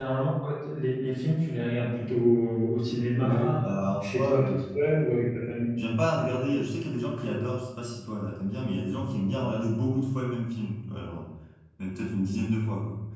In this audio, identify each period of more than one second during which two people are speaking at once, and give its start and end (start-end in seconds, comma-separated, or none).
3.2-4.6